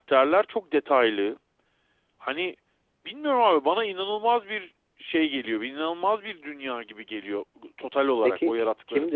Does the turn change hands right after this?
Yes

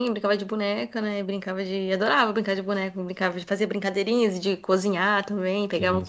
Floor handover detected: No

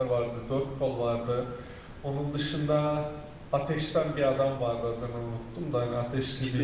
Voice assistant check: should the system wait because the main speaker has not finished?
No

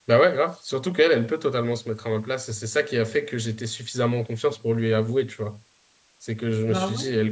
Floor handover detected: No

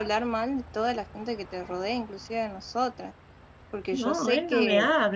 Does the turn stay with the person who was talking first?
No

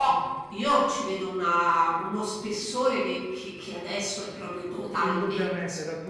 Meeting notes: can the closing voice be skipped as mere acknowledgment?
No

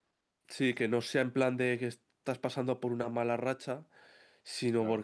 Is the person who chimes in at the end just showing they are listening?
Yes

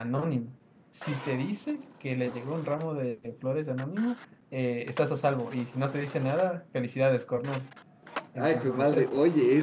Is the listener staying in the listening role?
No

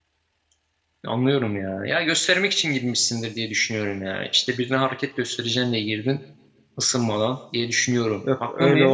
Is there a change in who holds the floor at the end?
Yes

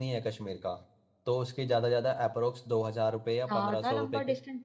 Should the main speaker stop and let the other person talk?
Yes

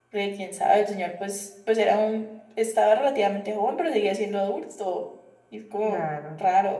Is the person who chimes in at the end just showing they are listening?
No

